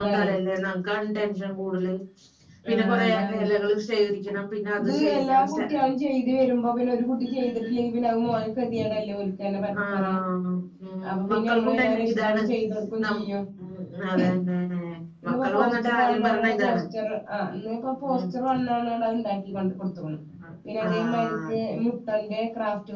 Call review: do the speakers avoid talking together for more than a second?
No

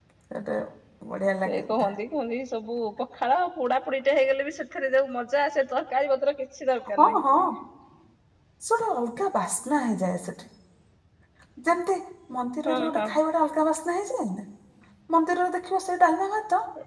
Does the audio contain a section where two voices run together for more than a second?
No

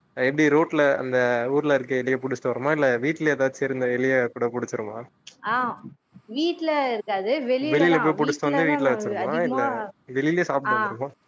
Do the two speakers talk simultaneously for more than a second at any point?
Yes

